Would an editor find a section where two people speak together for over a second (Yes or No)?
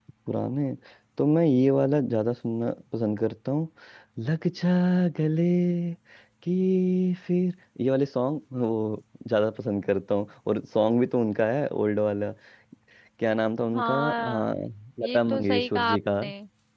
Yes